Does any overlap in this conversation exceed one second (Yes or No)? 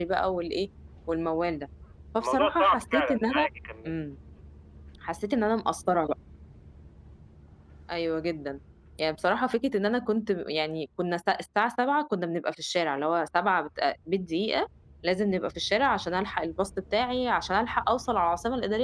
Yes